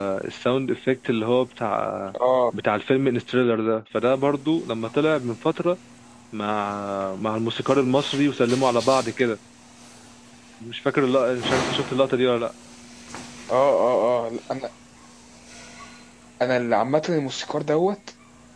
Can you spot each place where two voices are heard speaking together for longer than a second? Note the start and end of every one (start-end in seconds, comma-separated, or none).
none